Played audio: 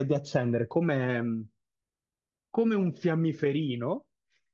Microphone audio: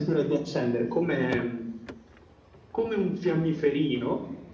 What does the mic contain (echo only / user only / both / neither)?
echo only